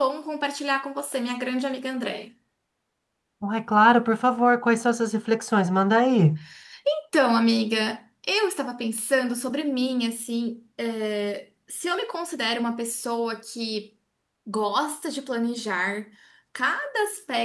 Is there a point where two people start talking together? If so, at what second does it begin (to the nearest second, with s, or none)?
none